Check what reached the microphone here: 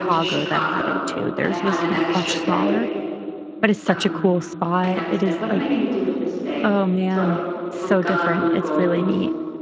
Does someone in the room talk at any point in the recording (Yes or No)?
Yes